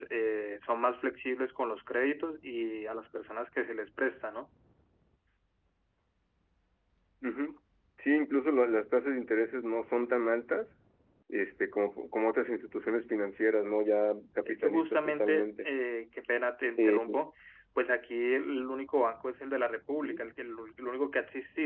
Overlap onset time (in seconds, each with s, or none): 14.5 s